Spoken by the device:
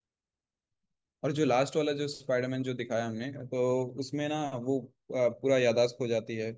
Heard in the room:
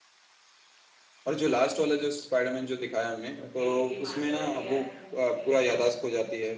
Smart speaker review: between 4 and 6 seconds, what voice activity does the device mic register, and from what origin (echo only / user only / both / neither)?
both